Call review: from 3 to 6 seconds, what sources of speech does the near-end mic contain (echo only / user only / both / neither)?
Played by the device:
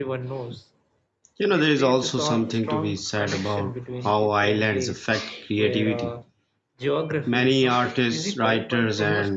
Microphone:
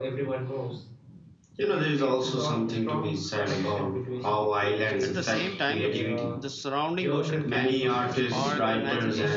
both